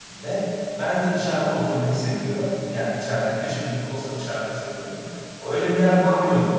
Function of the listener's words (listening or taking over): listening